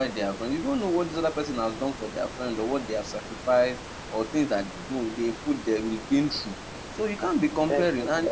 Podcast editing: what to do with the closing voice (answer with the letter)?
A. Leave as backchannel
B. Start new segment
B